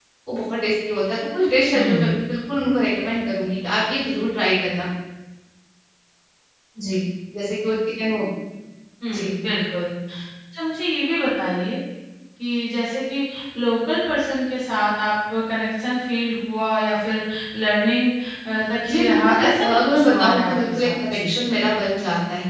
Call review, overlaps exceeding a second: present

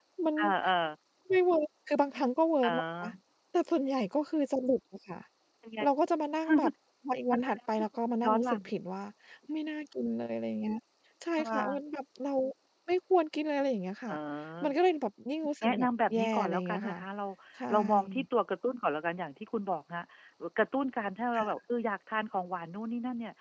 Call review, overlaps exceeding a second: present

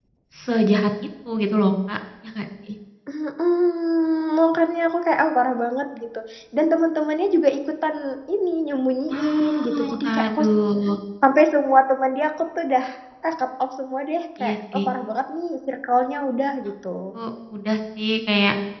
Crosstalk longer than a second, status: present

